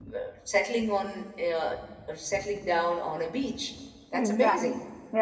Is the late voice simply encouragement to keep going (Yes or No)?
No